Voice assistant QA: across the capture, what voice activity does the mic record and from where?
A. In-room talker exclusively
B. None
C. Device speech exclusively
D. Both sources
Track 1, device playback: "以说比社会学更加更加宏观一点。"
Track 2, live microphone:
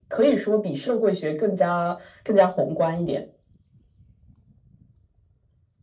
C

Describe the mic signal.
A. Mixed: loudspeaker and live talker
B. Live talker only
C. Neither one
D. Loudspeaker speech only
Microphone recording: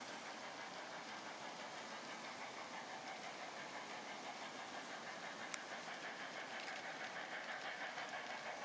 C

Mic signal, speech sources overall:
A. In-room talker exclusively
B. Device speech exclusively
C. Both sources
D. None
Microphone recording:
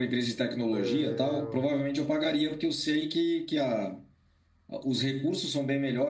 C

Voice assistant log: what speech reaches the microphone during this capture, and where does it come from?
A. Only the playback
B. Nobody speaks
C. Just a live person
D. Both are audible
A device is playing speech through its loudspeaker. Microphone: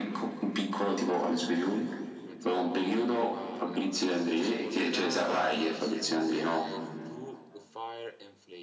D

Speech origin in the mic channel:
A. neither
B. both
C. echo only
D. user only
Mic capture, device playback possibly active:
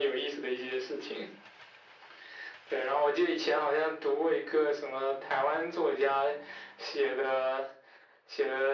C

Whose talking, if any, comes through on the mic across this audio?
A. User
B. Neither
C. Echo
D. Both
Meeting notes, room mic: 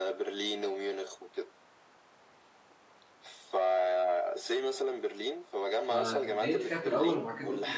D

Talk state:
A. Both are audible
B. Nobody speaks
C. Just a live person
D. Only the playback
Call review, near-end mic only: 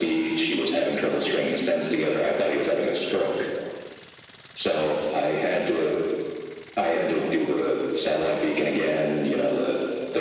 D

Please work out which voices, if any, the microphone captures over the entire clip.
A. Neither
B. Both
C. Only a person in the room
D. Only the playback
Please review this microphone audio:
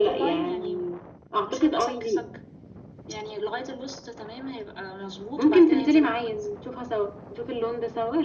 D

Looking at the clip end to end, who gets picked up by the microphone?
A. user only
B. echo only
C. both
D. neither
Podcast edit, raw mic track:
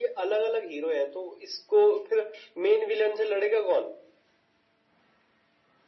B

